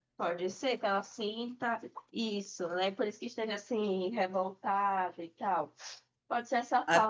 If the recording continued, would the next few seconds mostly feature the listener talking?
No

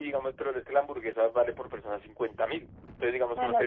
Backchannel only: Yes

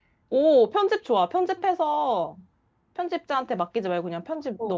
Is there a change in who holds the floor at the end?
Yes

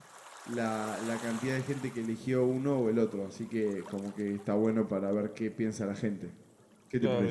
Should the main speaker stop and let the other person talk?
Yes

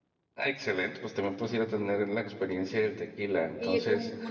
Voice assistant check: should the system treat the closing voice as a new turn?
Yes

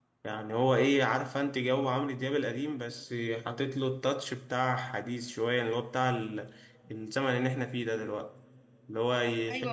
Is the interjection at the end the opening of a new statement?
No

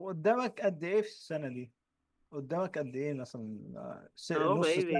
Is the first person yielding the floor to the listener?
Yes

